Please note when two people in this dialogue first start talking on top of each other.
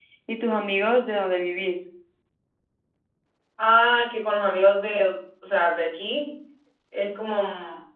none

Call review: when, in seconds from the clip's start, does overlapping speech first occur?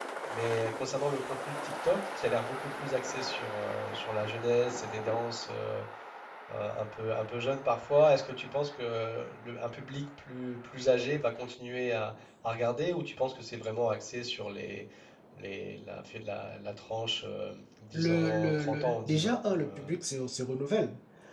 17.9 s

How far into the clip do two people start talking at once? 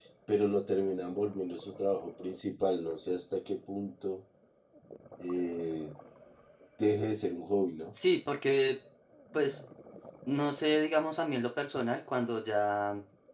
none

